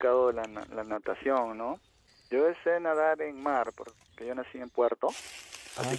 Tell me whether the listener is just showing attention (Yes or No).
Yes